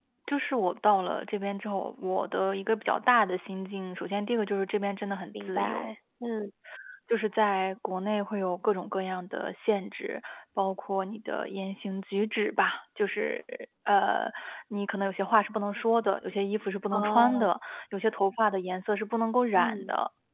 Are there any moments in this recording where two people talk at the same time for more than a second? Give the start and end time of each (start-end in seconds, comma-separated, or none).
none